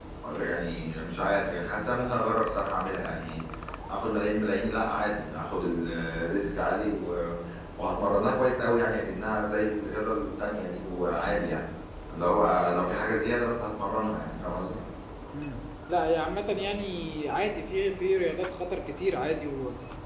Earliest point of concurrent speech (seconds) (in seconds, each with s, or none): none